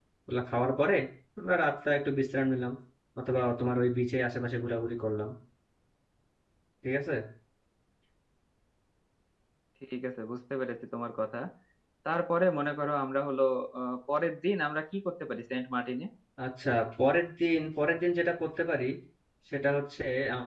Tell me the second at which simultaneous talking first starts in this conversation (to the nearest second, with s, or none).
none